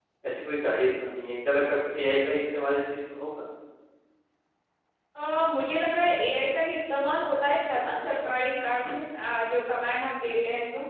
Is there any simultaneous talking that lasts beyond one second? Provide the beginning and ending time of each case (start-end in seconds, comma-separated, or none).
none